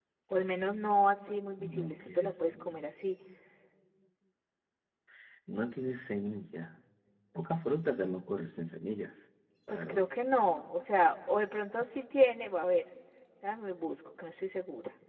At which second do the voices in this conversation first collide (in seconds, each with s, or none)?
1.6 s